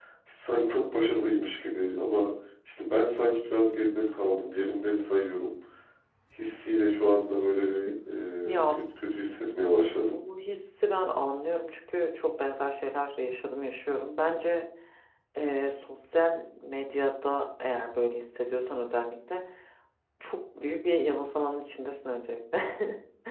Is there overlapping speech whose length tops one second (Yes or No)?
No